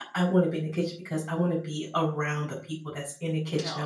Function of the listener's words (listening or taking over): listening